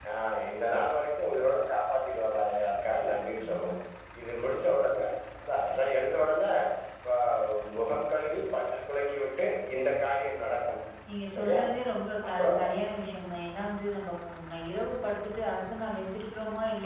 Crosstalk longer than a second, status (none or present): none